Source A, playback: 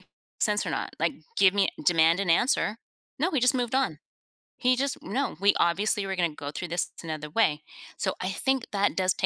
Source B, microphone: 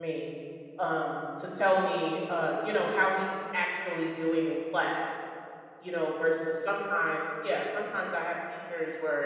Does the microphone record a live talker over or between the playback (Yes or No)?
Yes